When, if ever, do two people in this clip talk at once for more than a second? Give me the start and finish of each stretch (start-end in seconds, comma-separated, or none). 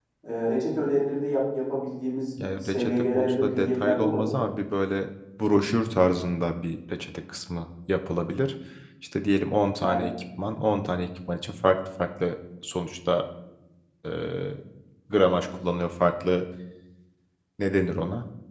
2.6-4.4